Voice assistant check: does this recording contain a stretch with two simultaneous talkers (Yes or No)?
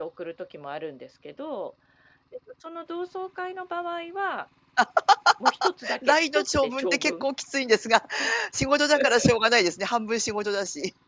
Yes